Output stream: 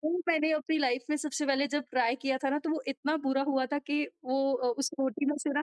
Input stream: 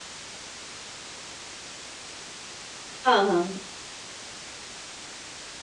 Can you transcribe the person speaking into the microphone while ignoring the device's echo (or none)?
हाँ, हाँ।